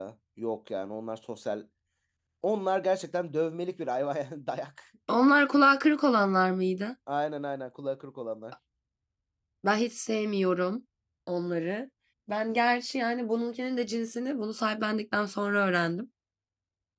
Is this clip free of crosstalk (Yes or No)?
Yes